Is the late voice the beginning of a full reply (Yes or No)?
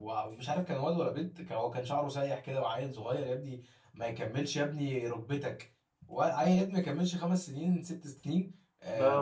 No